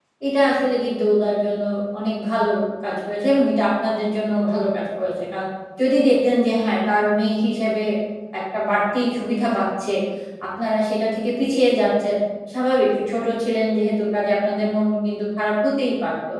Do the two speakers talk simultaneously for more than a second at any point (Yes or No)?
No